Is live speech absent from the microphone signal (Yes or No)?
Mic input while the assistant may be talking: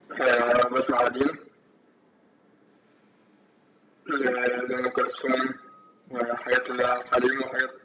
Yes